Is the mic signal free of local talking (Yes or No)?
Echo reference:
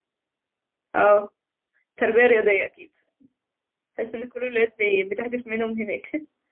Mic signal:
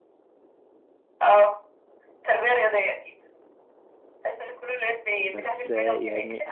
No